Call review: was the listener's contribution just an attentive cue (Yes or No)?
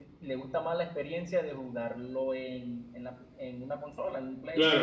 No